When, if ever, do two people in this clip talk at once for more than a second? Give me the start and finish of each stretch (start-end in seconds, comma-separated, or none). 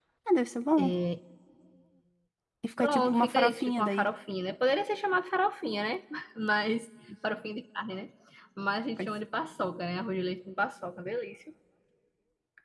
2.8-4.1